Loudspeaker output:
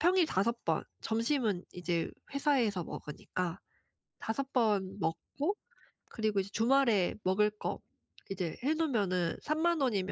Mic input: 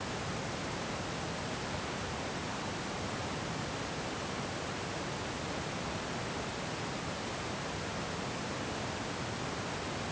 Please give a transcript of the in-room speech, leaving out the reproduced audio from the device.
none

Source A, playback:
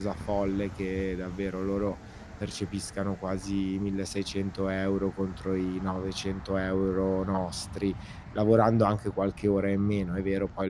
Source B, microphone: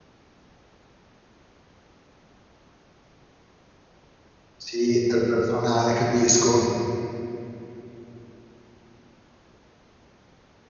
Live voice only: Sì, interpersonale capisco.

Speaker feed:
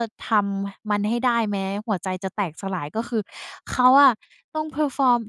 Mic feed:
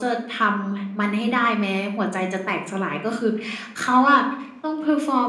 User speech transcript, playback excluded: none

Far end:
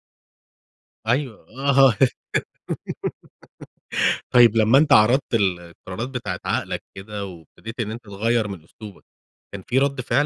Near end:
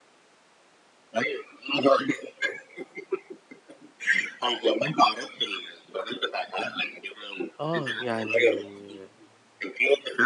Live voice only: آه، يعني

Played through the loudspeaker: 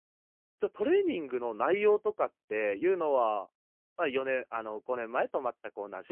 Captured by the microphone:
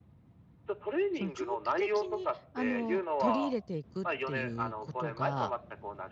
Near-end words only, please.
その長期的にあの、取り入れていくっていうことが、

